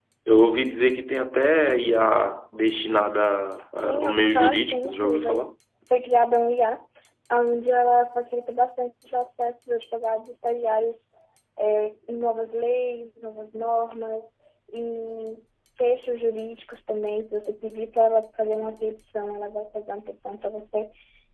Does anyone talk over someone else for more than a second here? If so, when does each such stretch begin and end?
3.8-5.4

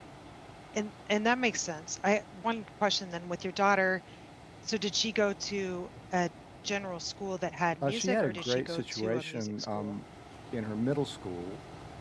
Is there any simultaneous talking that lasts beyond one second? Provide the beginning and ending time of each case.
7.8-9.9

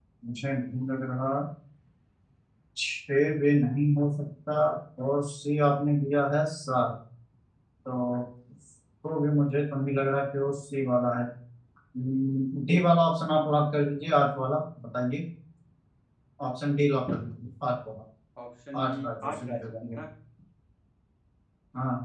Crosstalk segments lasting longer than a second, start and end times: 18.8-20.0

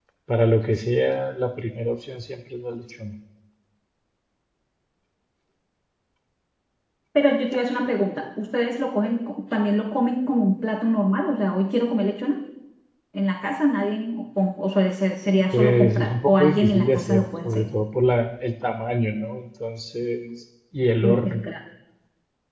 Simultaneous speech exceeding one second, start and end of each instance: 15.5-17.7

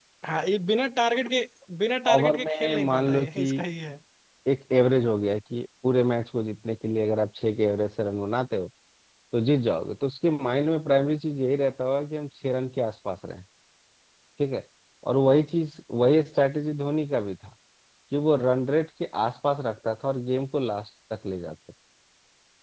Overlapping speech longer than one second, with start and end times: 2.1-3.5

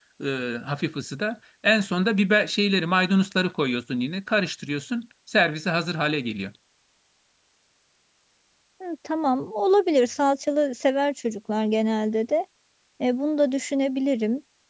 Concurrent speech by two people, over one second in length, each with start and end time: none

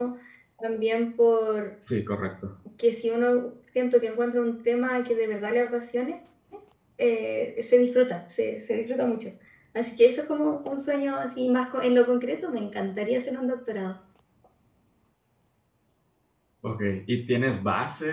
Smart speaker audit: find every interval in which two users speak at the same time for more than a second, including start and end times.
none

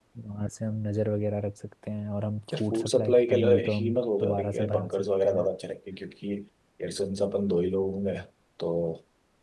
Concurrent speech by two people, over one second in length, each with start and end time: 2.5-5.5

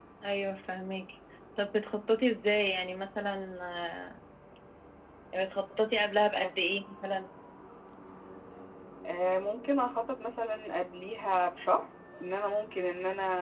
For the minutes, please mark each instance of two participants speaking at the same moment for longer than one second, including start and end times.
none

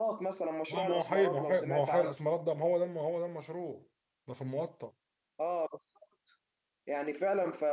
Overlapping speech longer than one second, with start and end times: 0.7-2.1

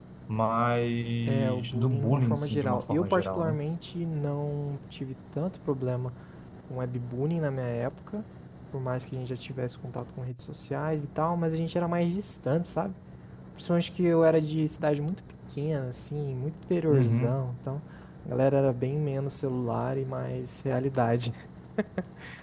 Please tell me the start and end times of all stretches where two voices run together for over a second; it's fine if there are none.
1.2-3.6

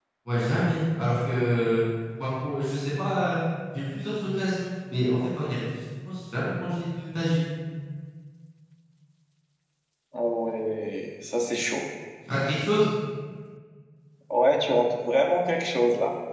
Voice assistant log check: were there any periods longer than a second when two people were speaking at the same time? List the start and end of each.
none

